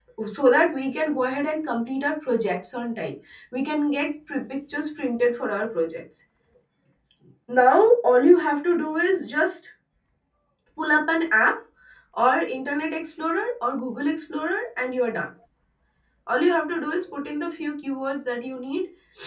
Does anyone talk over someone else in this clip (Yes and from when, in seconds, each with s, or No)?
No